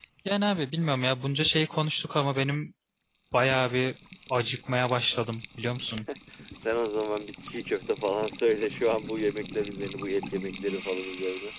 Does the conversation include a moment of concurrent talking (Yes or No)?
No